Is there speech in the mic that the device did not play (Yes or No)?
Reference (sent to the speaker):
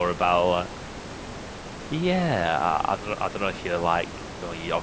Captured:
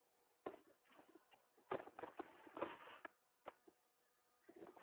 No